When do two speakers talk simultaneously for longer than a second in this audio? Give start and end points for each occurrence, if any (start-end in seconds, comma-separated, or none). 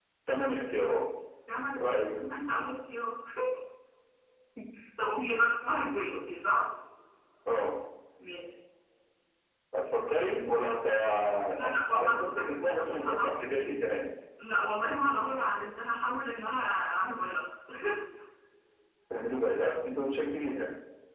11.7-13.3